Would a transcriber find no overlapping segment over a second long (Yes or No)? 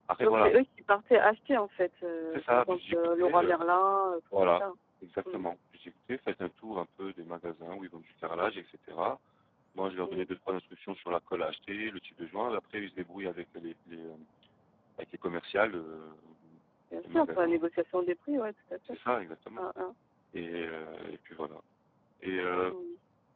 No